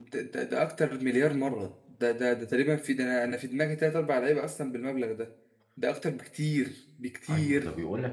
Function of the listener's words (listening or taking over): taking over